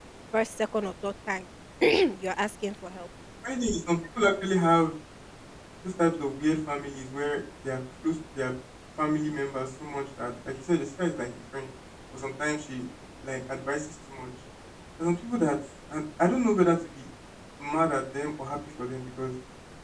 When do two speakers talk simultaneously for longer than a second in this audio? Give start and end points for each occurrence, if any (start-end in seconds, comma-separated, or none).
none